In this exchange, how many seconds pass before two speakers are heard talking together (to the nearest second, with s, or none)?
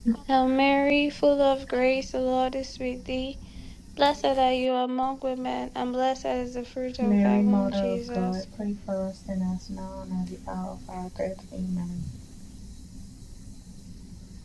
7 s